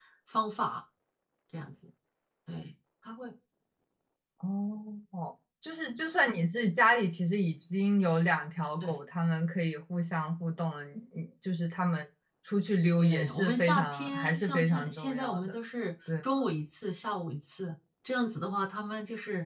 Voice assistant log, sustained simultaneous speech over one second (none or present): present